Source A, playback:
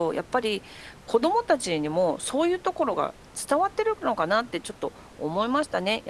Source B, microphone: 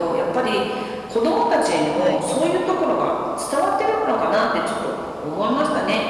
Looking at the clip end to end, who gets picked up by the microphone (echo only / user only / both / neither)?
both